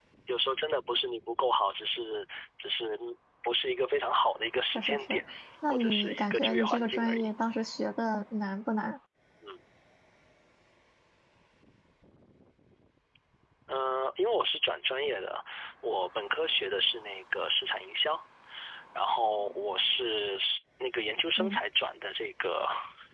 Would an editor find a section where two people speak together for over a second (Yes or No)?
Yes